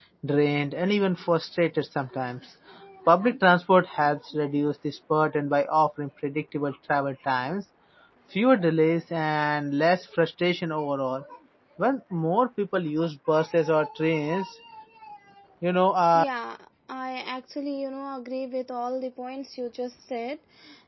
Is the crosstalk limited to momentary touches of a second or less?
Yes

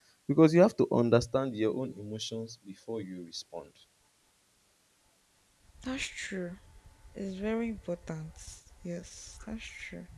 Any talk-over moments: No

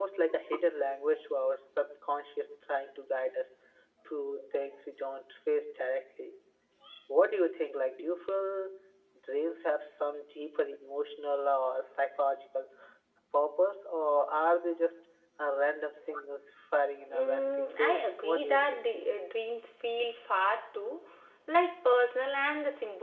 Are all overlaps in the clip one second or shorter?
No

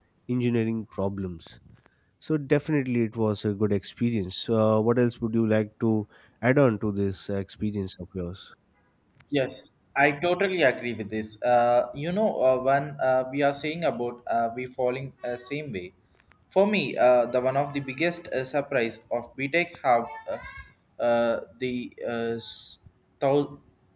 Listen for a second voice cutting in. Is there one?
No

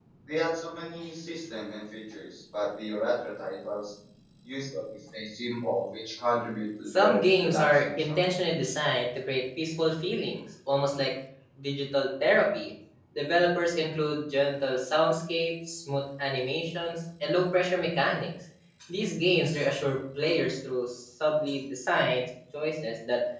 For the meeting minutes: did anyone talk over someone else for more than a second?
Yes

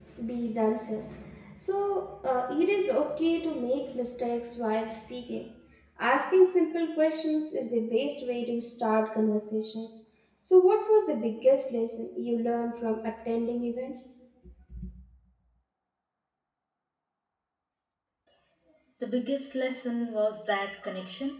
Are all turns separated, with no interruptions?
Yes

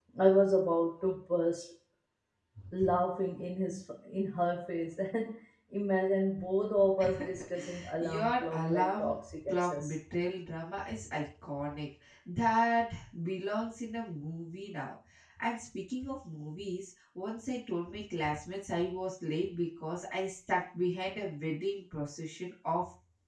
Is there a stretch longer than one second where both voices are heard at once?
Yes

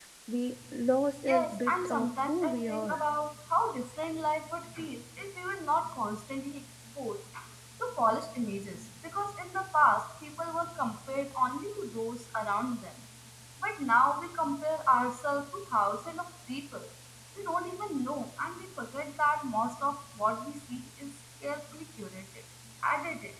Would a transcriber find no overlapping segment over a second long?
No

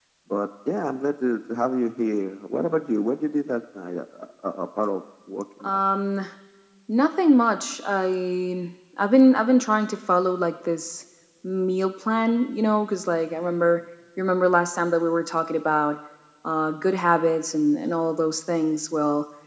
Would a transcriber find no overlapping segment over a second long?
Yes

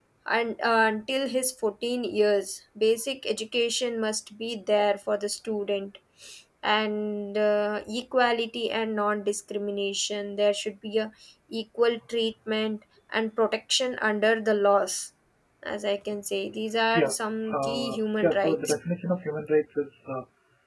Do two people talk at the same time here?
Yes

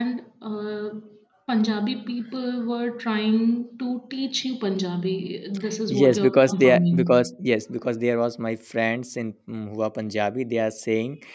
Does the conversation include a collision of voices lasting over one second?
Yes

